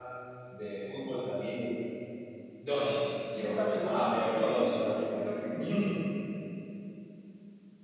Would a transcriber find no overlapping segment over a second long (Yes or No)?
No